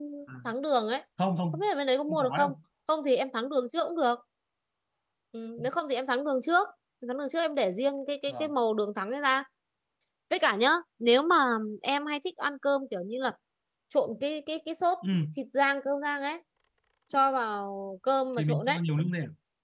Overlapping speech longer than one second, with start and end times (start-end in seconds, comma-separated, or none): none